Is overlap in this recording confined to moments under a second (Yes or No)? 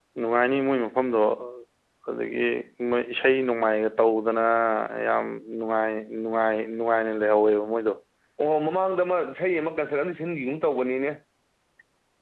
Yes